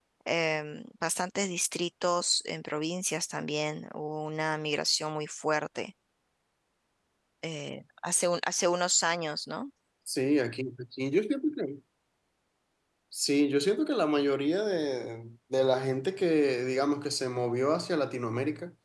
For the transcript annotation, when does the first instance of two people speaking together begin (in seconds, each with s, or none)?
none